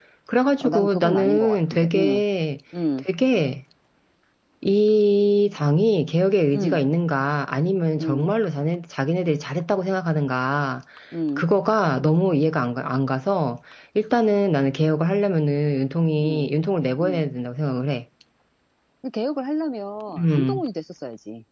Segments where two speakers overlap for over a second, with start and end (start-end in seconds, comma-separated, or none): 0.6-2.2